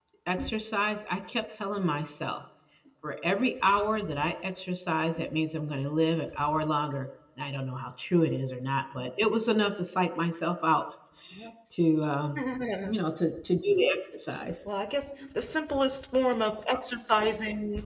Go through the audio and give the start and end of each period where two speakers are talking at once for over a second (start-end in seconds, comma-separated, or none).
none